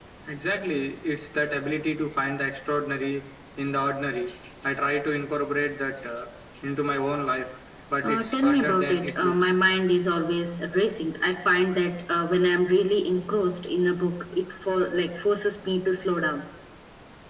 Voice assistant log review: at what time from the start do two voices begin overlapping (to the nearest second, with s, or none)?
8 s